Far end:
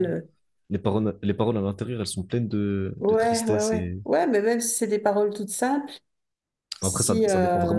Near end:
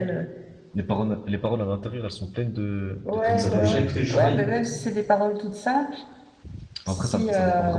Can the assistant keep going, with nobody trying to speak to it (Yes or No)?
No